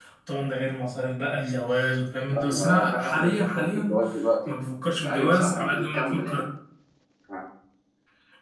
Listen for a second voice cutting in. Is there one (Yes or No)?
Yes